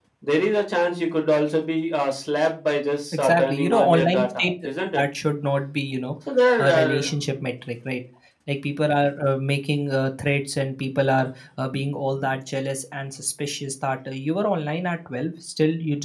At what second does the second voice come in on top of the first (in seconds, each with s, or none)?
3.1 s